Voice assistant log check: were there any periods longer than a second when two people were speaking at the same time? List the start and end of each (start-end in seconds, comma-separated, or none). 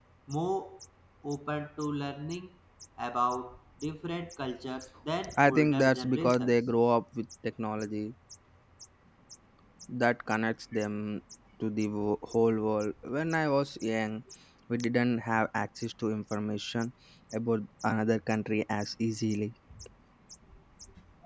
5.4-6.6